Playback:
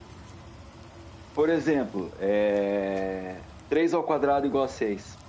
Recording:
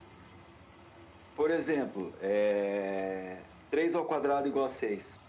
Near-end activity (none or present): none